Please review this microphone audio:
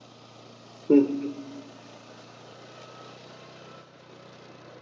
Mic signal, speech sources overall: user only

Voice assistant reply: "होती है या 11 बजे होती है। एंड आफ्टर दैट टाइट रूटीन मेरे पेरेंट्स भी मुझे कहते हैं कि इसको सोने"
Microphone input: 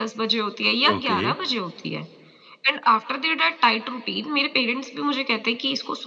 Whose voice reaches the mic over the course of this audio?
both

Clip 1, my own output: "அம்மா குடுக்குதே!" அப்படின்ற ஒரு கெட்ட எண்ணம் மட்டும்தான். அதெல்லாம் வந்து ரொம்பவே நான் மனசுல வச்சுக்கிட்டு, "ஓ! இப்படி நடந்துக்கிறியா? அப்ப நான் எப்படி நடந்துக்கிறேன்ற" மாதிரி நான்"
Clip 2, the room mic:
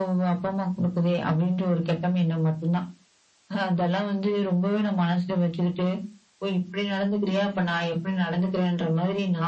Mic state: echo only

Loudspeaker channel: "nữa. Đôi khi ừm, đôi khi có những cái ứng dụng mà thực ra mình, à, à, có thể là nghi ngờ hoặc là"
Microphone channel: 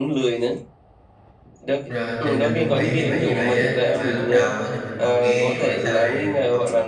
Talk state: both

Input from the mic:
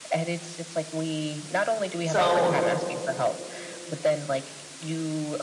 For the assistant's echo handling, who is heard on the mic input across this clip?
both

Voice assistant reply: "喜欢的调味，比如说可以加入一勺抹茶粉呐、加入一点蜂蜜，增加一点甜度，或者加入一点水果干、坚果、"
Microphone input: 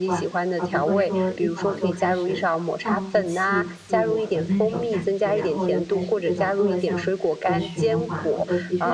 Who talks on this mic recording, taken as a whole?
both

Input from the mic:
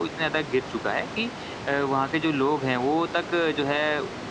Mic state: user only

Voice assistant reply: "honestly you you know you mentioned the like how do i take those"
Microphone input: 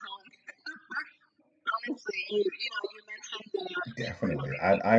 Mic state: both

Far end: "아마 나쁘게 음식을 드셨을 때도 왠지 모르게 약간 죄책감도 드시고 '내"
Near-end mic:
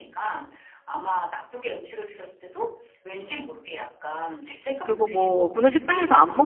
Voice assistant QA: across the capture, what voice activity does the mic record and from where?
both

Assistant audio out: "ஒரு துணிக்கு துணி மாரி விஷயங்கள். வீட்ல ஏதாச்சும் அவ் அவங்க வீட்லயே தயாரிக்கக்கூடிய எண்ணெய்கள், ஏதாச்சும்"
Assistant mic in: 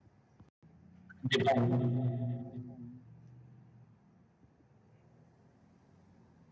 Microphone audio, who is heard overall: user only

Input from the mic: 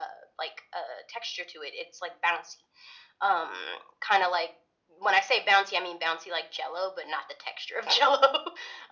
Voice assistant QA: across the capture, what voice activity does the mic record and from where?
echo only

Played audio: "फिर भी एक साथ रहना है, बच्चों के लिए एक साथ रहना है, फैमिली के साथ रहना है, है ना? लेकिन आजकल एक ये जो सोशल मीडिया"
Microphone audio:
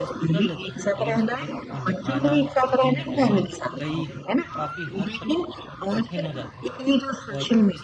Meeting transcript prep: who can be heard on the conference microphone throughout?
both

